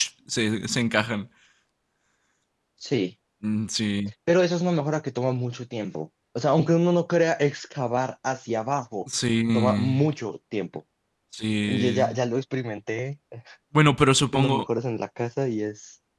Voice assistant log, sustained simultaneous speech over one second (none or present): none